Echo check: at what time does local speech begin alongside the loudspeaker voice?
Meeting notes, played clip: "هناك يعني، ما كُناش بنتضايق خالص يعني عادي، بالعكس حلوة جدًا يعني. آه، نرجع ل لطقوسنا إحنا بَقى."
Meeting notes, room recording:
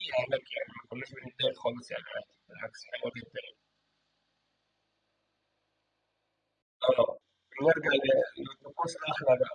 none

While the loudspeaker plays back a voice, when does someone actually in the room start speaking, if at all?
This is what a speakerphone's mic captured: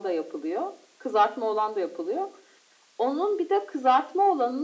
none

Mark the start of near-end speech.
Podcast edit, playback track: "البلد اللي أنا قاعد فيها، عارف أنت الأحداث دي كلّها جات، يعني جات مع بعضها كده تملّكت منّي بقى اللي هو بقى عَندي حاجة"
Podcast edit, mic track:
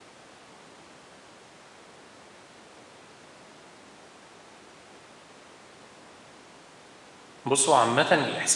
7.5 s

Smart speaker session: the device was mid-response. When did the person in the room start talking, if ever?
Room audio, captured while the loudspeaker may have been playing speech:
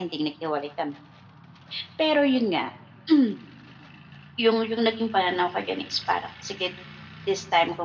none

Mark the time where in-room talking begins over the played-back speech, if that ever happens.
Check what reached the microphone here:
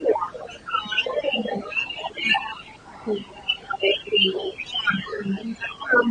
none

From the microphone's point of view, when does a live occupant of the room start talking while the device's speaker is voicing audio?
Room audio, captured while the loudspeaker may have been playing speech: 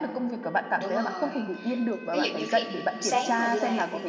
0.8 s

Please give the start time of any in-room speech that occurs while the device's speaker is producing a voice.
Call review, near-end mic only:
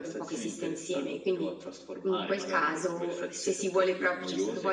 none

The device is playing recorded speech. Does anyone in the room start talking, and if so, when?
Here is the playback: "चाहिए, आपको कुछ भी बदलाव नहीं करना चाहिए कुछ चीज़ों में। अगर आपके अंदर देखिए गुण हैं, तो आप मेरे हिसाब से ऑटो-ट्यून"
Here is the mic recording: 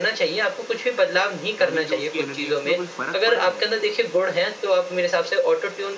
1.6 s

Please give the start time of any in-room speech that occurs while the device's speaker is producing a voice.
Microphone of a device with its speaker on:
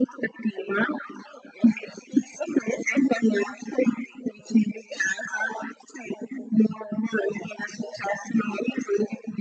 none

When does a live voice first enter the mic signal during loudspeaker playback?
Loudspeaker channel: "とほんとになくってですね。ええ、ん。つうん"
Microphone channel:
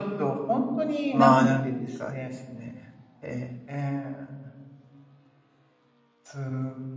1.1 s

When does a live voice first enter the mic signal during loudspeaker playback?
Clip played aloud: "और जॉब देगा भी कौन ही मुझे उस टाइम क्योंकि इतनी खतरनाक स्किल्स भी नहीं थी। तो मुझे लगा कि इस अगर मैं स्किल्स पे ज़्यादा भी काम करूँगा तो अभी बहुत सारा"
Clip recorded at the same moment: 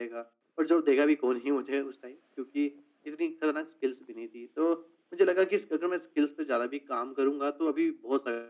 none

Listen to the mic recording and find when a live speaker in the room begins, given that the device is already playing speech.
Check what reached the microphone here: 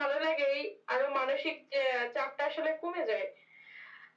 none

